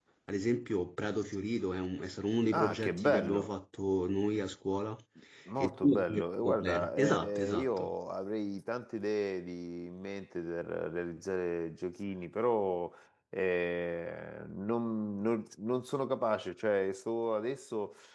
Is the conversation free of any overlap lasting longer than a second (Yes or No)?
No